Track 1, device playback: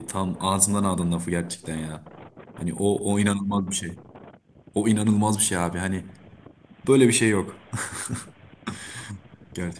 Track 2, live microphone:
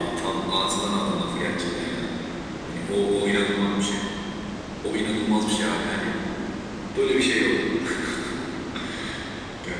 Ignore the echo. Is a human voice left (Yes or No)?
No